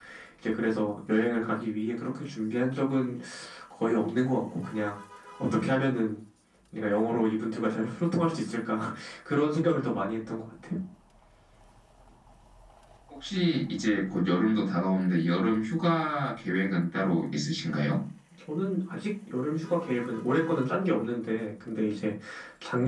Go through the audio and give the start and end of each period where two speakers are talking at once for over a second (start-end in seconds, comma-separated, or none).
none